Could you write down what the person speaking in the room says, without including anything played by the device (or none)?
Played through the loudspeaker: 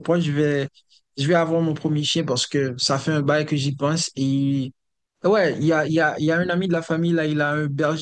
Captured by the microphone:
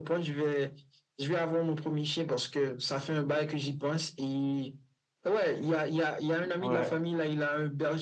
Ouais.